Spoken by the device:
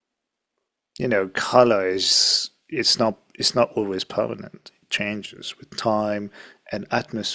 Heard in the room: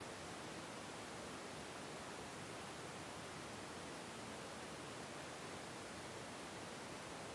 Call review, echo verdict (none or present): none